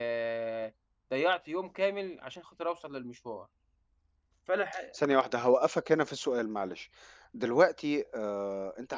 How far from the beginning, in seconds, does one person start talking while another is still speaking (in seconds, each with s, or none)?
none